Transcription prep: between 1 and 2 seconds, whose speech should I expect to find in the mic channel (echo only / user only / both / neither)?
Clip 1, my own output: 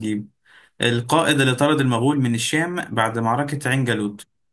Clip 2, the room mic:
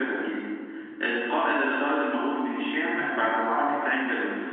echo only